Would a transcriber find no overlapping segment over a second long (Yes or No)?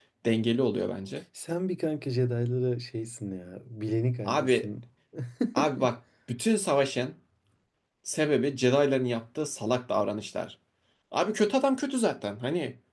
Yes